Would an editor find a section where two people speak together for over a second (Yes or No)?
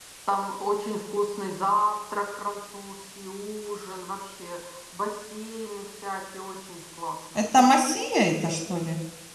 No